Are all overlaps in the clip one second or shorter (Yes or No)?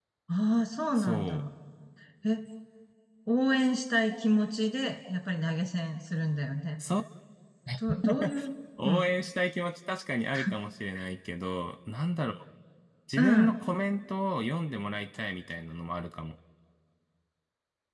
Yes